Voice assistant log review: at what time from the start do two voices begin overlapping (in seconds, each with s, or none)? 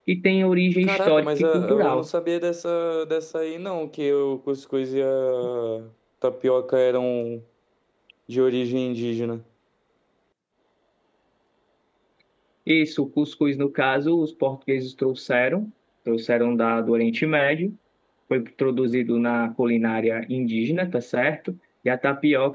0.8 s